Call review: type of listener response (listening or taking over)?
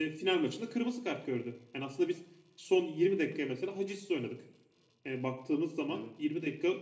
listening